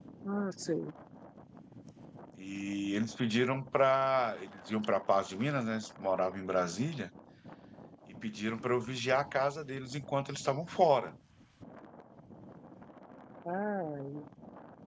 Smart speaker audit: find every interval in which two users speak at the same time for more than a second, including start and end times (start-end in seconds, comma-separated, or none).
none